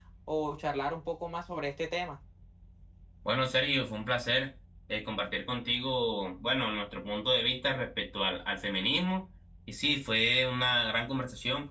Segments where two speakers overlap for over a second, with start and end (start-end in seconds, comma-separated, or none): none